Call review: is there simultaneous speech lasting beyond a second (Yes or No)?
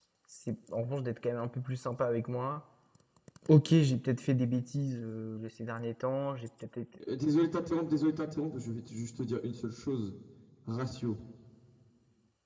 No